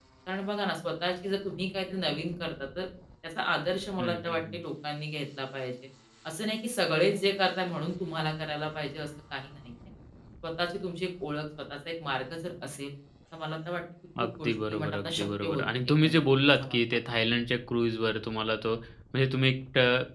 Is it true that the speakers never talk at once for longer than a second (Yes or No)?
No